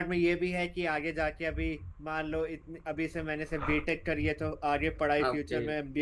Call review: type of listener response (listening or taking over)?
listening